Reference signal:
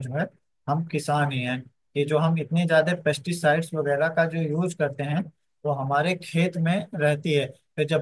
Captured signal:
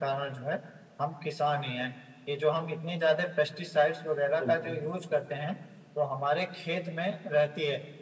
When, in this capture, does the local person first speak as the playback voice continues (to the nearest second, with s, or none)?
4 s